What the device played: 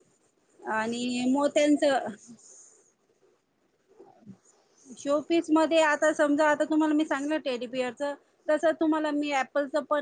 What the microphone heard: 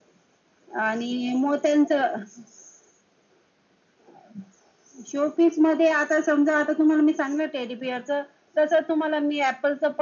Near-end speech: none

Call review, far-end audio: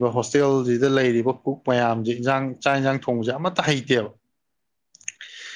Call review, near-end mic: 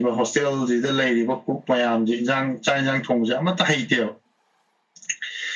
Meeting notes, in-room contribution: none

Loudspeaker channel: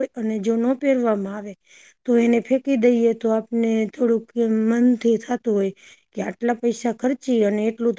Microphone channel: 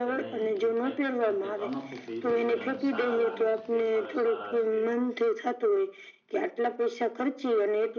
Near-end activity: present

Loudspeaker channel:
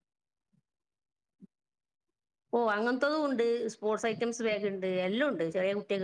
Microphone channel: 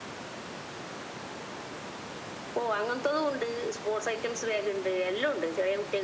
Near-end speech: none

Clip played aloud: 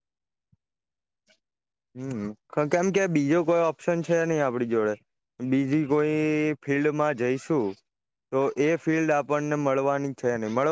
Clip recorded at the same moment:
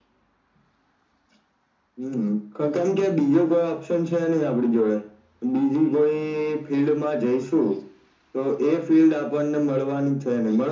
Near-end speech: none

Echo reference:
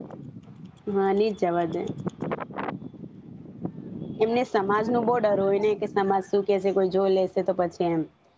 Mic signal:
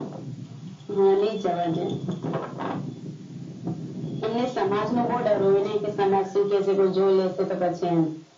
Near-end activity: none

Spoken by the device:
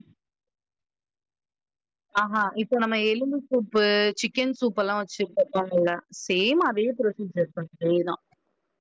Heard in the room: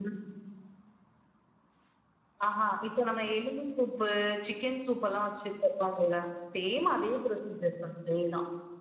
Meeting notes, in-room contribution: none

